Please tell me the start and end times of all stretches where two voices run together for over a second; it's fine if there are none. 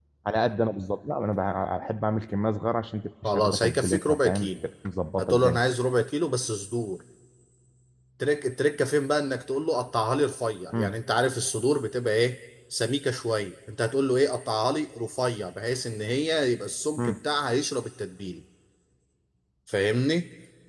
3.2-4.5

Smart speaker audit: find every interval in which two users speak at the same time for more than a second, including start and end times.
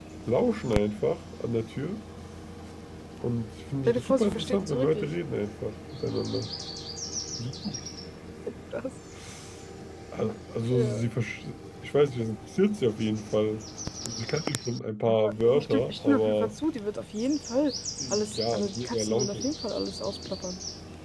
3.9-5.1, 15.1-16.6, 18.1-19.5

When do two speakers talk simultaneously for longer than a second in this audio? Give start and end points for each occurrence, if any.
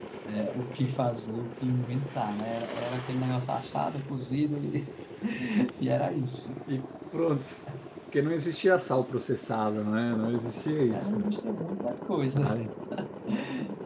none

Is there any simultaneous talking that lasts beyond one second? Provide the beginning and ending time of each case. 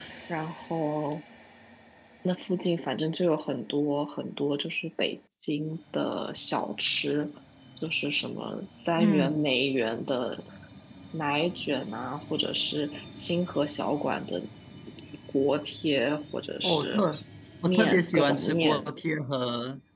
17.6-18.9

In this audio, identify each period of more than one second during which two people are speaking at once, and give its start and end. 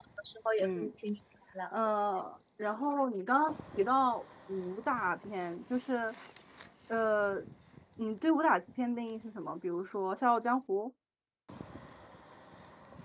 none

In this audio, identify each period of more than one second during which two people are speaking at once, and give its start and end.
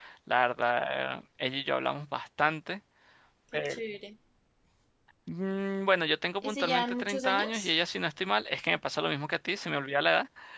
6.4-7.7

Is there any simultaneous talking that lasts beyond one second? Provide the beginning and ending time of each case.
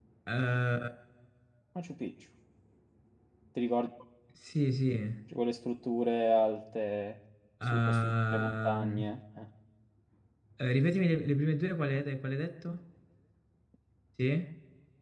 7.7-9.0

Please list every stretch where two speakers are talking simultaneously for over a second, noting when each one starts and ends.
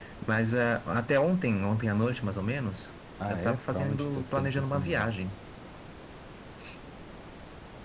3.2-5.1

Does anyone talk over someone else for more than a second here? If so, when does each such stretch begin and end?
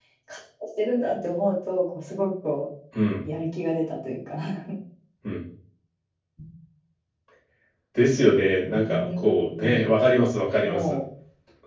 8.7-9.9

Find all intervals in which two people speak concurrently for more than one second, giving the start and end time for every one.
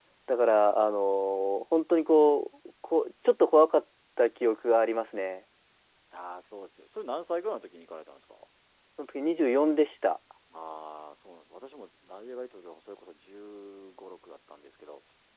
none

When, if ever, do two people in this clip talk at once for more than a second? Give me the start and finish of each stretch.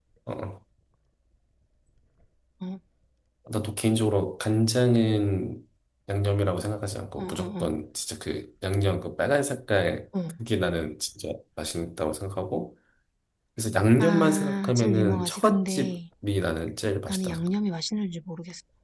14.0-15.9

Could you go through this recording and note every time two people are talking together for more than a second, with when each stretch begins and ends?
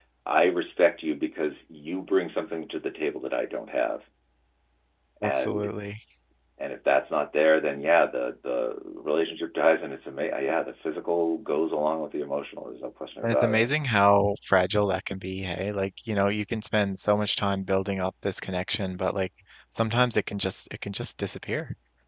none

